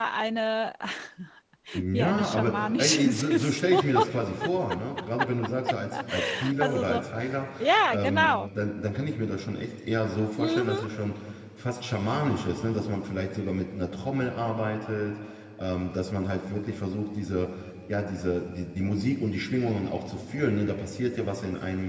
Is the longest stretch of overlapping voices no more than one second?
No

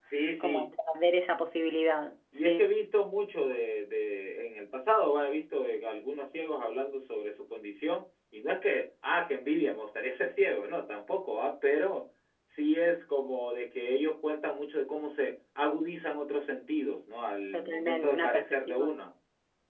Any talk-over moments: Yes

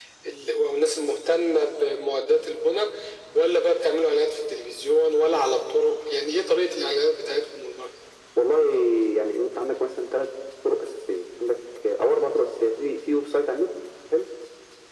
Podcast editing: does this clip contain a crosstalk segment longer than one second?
No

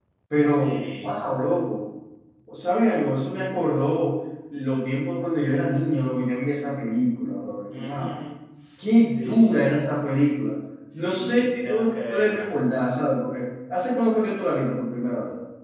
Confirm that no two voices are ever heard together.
No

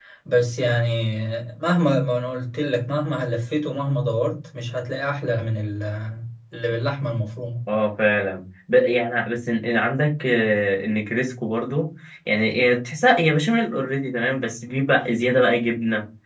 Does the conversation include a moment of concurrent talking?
No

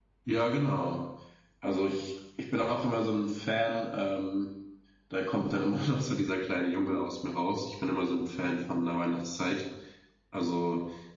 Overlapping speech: No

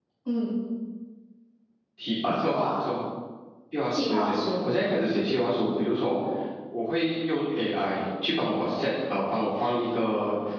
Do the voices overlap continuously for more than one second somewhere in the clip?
Yes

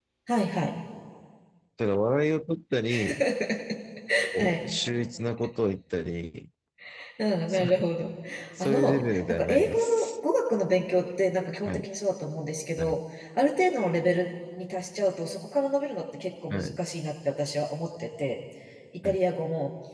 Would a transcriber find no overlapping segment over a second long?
No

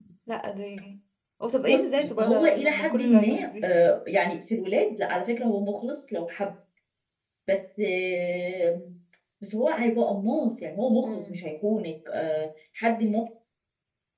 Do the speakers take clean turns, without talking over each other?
No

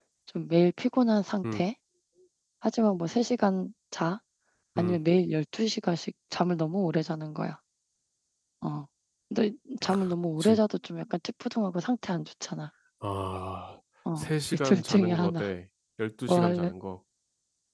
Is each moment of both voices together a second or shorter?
No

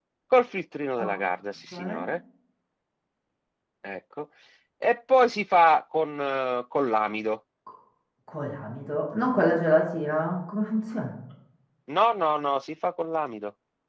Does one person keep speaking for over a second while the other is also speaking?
No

